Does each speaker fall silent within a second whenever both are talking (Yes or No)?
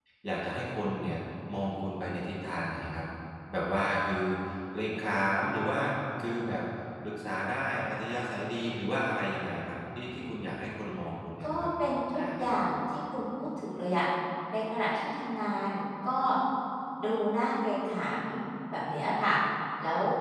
Yes